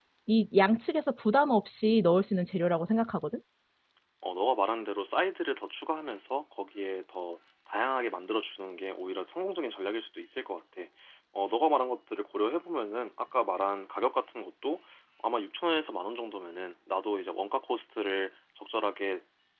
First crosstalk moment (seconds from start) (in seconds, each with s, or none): none